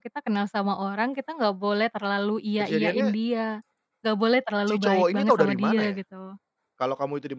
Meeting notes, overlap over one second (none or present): present